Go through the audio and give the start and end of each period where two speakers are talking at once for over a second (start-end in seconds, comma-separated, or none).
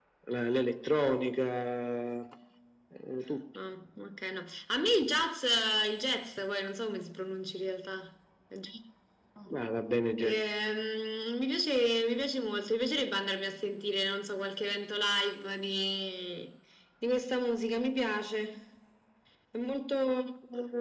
none